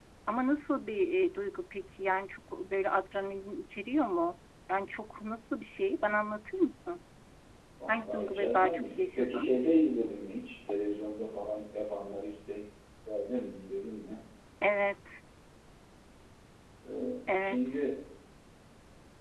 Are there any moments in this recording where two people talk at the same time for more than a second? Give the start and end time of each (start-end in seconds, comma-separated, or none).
7.9-9.5